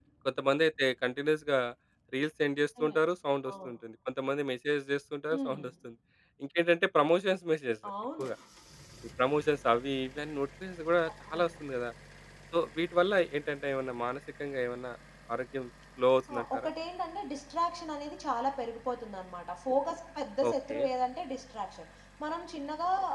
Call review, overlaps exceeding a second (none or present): none